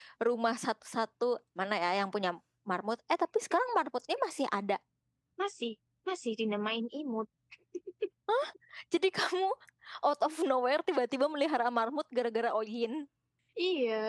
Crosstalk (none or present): none